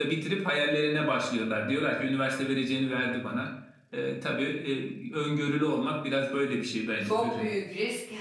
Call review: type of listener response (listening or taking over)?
taking over